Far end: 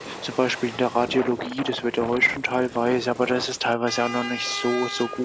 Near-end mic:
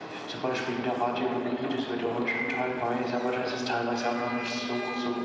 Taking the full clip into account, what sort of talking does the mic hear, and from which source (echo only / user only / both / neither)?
echo only